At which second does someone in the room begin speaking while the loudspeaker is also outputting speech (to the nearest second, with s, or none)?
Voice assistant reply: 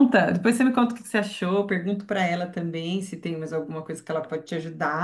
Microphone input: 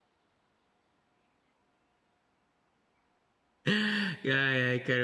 4 s